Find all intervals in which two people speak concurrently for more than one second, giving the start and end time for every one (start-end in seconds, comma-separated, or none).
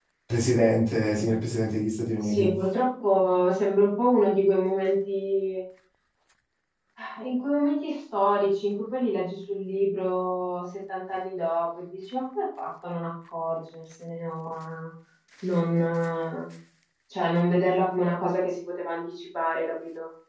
none